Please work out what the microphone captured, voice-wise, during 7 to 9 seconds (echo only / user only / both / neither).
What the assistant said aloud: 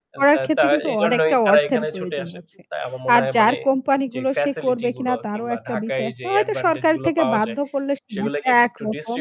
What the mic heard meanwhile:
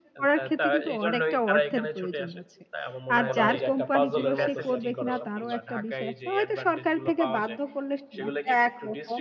echo only